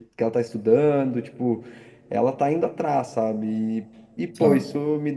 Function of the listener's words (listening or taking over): listening